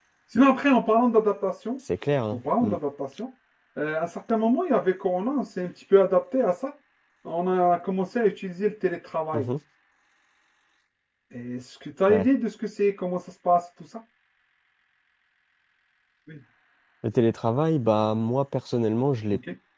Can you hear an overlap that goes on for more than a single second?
No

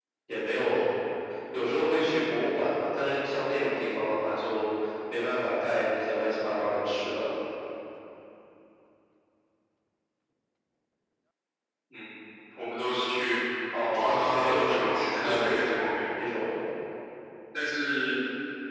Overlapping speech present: Yes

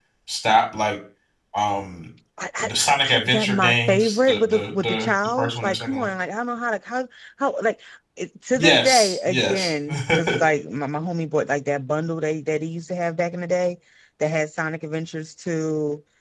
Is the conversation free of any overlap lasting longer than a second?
No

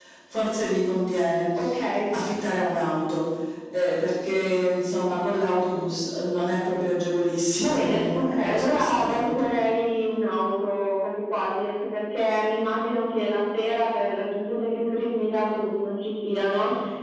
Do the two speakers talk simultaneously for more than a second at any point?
Yes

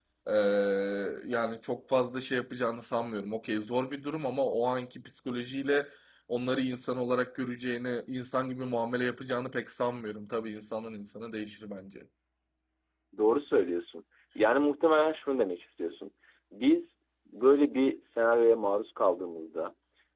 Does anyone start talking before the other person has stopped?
No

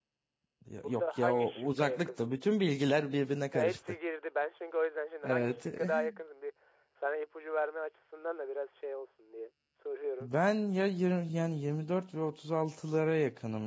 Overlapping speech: Yes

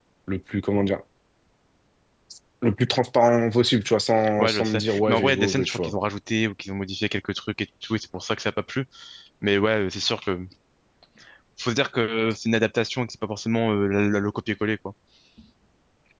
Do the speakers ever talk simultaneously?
Yes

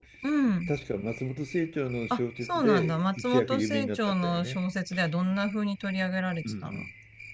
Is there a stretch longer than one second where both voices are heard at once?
Yes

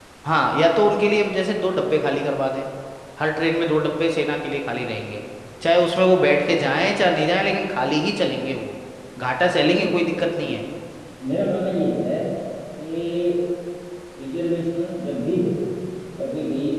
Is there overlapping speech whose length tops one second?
No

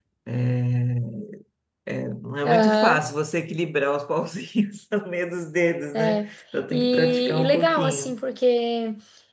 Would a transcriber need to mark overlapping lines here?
Yes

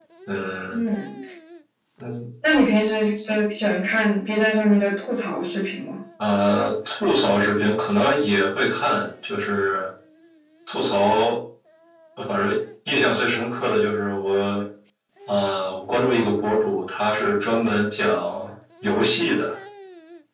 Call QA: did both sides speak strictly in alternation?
Yes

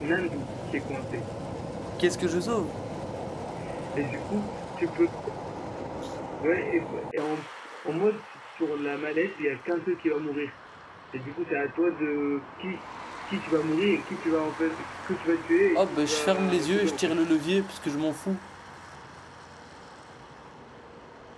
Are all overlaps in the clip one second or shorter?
No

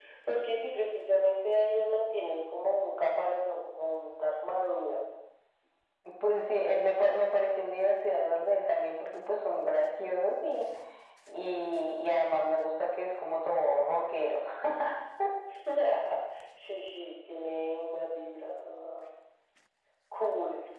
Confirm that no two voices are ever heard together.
Yes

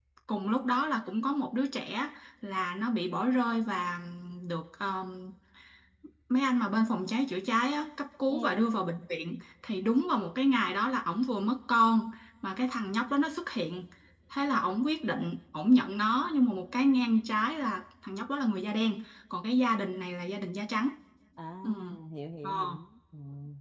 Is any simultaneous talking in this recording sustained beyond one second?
No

